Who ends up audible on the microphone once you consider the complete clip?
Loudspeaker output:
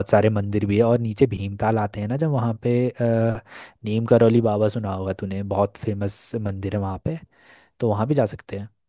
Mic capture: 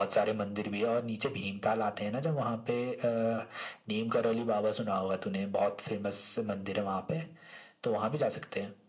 echo only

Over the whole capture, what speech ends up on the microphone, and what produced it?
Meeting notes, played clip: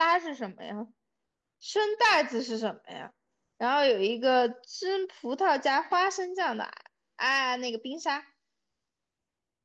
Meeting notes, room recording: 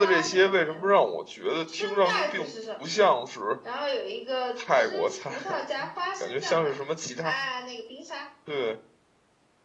both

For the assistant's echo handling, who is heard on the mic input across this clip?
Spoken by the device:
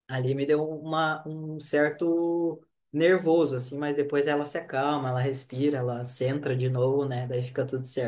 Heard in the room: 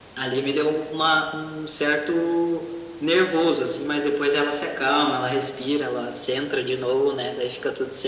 echo only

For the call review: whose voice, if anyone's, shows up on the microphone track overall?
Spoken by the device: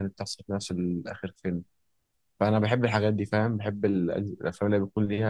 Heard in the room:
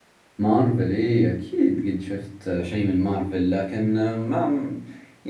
user only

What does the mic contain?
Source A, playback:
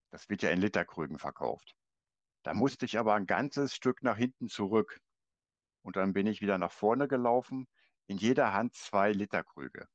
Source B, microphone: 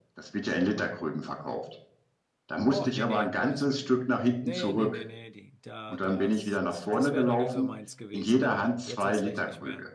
both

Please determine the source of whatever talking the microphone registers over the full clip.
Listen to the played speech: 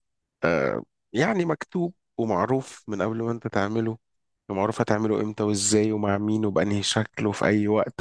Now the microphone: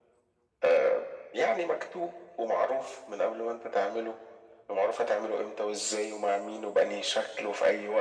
echo only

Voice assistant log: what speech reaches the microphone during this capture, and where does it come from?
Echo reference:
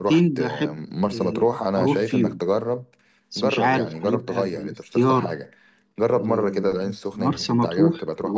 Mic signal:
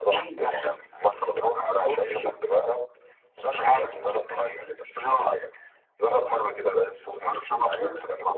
echo only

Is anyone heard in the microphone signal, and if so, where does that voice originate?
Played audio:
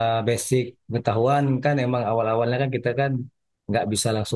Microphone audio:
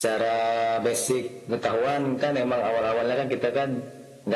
echo only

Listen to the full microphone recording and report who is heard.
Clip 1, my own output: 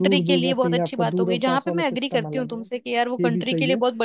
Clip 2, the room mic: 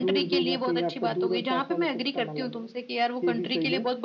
echo only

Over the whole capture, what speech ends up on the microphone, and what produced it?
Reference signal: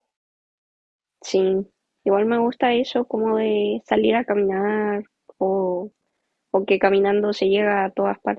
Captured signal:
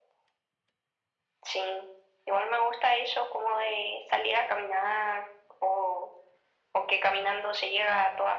echo only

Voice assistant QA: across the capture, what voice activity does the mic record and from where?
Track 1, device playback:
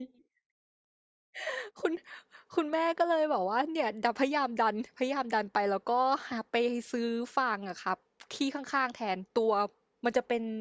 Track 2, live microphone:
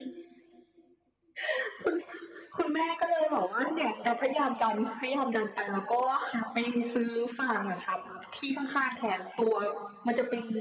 echo only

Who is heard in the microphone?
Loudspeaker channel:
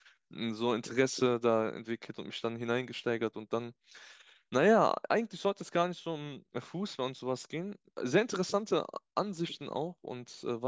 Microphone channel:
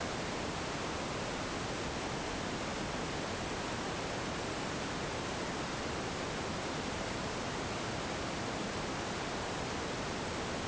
neither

